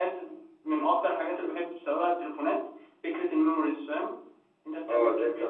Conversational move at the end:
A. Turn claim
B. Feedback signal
A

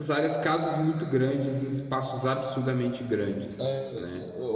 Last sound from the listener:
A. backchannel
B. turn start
B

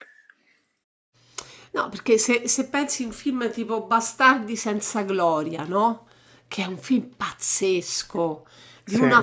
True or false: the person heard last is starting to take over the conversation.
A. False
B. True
A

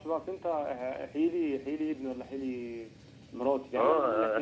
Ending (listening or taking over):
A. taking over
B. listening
A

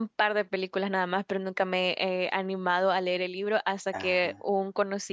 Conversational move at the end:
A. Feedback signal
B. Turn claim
A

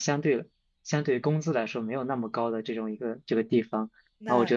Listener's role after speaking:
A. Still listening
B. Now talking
A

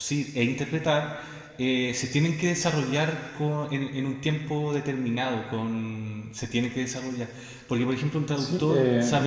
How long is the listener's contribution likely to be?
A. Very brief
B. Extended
B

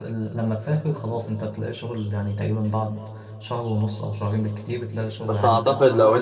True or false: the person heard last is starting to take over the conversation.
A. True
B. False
A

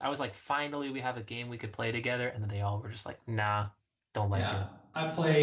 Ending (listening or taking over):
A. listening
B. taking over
B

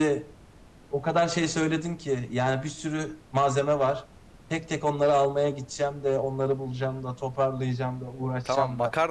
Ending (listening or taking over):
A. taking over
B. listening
A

